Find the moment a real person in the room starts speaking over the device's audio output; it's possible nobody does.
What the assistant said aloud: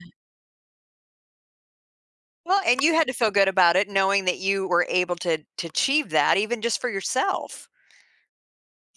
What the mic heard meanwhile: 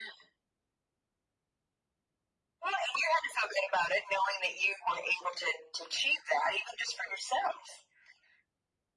none

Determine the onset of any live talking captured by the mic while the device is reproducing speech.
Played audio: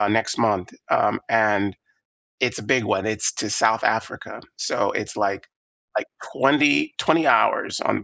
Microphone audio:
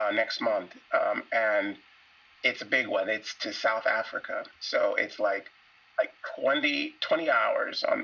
none

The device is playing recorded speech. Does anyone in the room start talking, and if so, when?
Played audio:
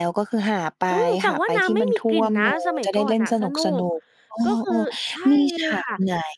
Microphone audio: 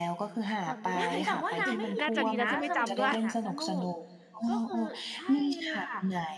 0.7 s

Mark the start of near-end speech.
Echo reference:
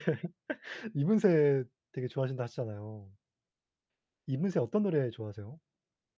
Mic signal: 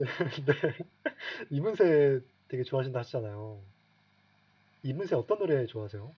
none

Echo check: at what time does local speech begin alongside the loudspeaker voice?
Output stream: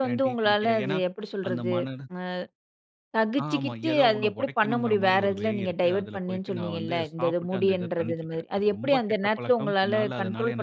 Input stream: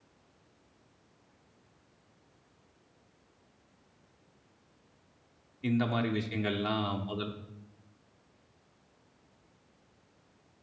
5.7 s

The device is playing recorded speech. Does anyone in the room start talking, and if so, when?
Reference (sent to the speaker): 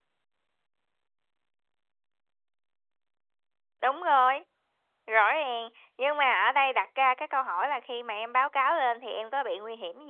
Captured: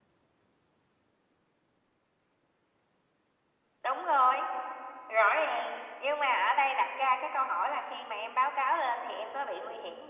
none

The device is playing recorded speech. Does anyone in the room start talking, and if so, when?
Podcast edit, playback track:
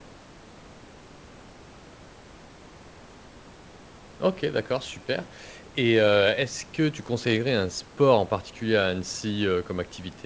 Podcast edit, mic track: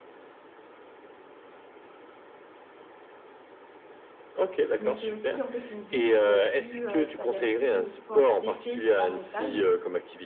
4.8 s

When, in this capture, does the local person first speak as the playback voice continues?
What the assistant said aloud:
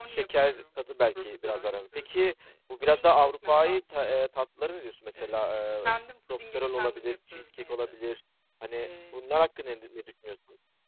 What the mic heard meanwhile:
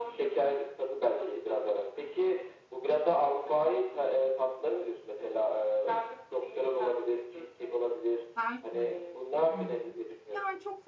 8.3 s

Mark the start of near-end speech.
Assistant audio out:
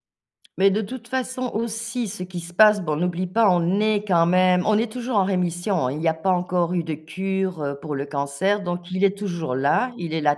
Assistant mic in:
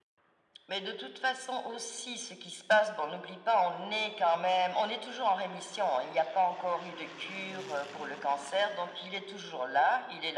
none

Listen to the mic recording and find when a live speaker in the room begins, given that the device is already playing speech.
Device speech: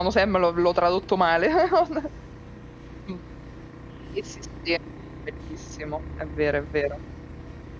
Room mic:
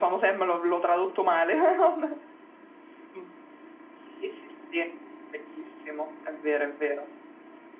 none

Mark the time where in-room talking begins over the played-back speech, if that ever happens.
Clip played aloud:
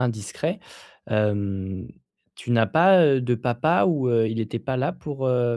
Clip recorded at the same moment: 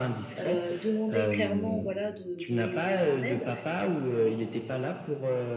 0.4 s

